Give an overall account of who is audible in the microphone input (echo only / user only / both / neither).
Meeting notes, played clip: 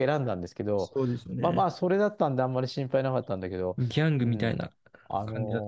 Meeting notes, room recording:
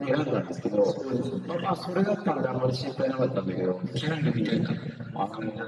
echo only